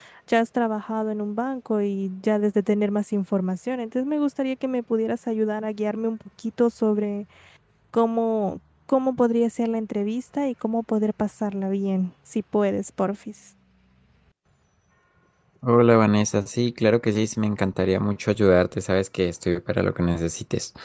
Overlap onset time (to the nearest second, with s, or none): none